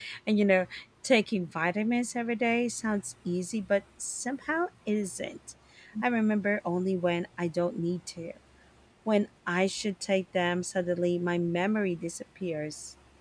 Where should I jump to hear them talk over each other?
none

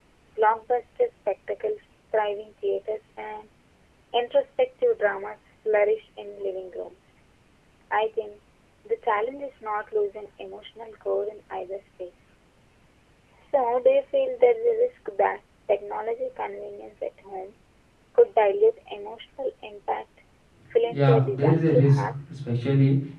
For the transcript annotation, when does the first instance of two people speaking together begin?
21 s

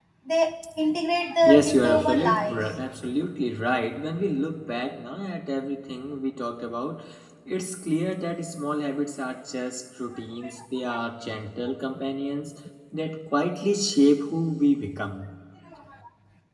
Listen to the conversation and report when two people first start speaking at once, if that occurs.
1 s

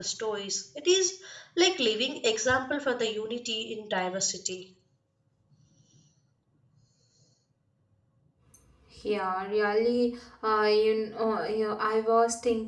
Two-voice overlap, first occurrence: none

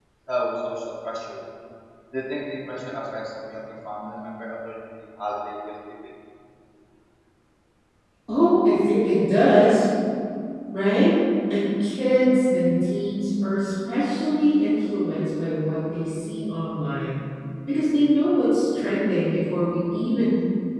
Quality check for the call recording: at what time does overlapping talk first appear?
none

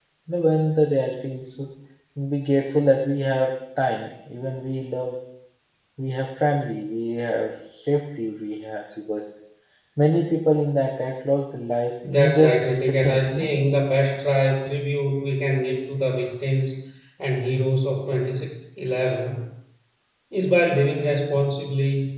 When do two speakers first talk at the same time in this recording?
12 s

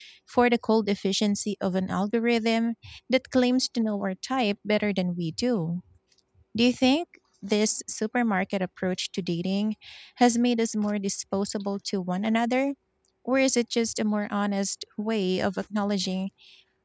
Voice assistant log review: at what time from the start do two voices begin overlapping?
none

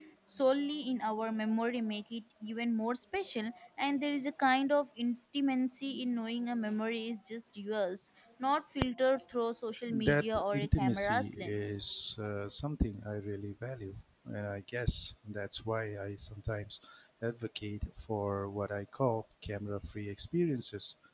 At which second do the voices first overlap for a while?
10 s

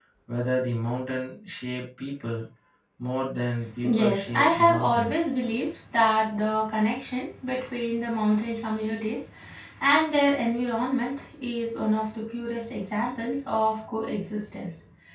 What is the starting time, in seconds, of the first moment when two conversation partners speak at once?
4 s

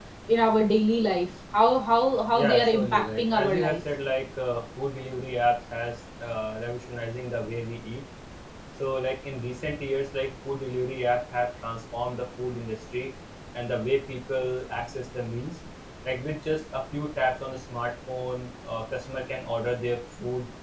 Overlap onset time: 2 s

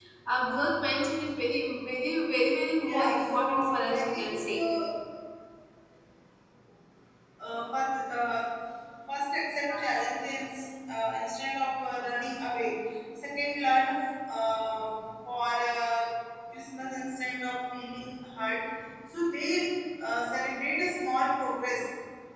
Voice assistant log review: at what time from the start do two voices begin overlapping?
3 s

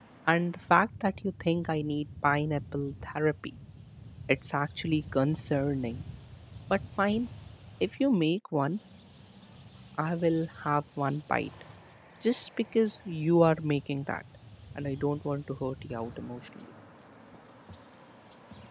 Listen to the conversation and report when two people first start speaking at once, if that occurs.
none

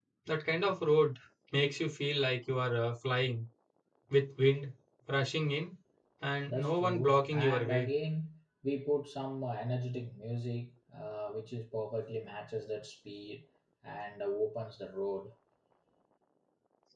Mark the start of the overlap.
6 s

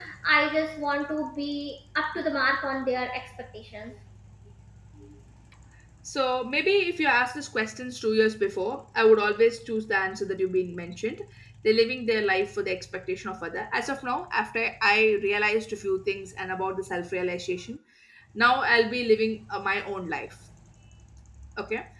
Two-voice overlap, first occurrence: none

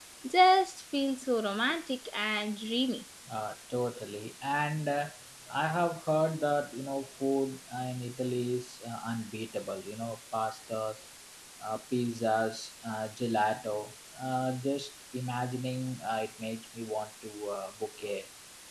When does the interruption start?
none

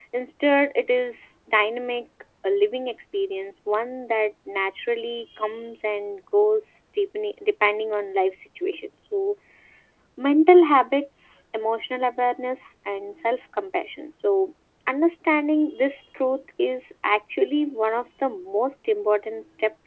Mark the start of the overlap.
none

